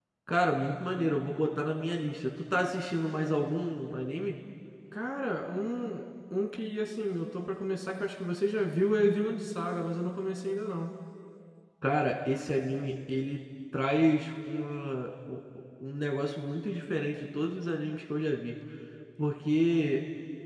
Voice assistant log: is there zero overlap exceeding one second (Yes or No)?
Yes